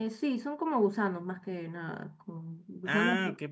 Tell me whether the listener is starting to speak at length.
Yes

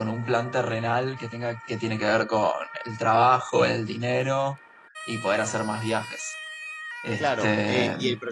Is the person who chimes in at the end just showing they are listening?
No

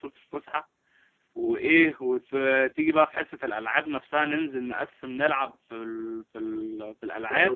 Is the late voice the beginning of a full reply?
Yes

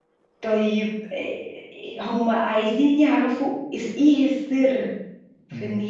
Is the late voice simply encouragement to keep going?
Yes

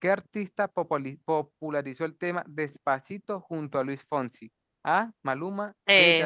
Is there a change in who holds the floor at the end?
No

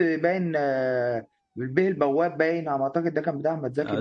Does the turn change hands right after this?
Yes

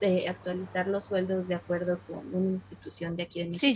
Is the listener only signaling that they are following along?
No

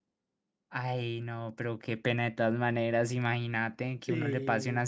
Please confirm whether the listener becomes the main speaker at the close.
No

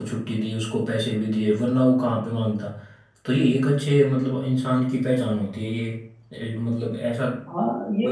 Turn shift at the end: Yes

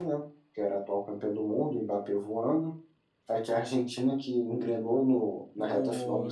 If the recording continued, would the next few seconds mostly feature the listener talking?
Yes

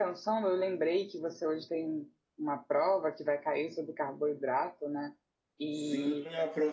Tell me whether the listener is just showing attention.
No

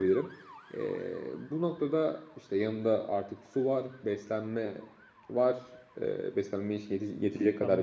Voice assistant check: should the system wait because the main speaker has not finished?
No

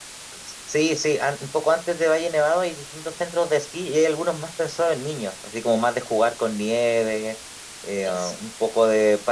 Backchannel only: Yes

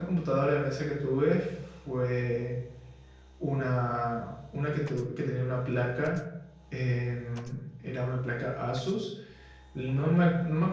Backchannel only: Yes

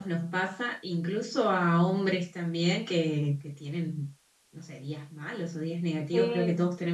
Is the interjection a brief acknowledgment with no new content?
Yes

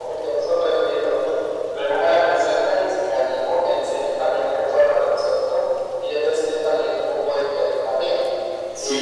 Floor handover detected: Yes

